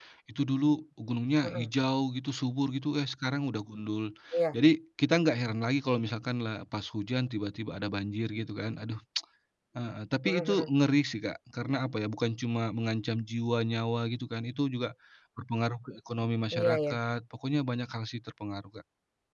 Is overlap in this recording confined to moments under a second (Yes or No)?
Yes